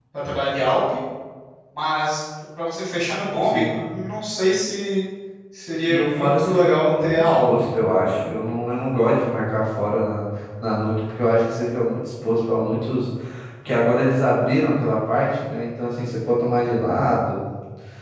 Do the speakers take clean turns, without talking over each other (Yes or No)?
No